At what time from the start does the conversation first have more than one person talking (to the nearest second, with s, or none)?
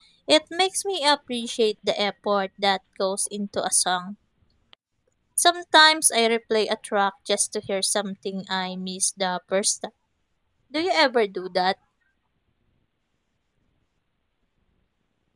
none